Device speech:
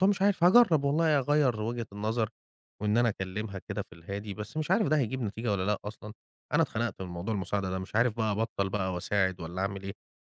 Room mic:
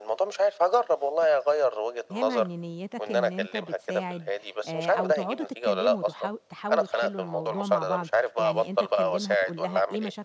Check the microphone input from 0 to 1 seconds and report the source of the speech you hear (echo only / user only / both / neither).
echo only